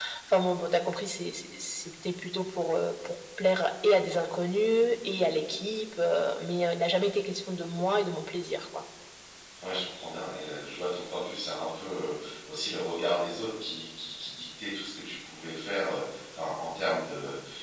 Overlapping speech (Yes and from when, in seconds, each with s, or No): No